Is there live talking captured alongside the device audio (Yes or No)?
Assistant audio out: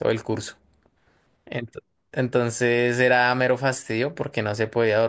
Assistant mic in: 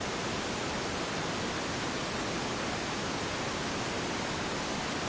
No